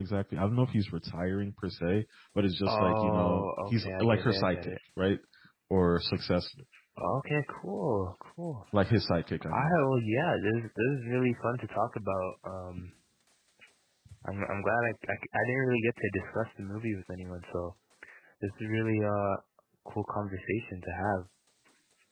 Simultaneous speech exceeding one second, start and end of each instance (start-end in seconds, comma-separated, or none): 2.7-4.8